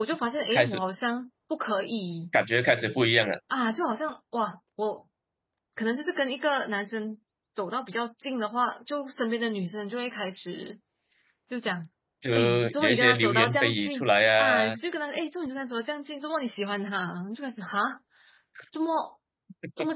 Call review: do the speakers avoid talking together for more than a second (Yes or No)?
No